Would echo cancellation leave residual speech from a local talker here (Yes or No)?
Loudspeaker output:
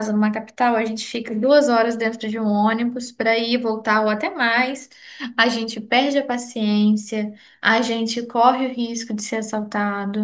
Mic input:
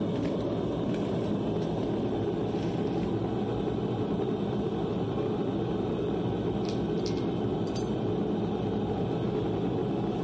No